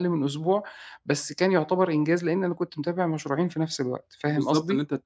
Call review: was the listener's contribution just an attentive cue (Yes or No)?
No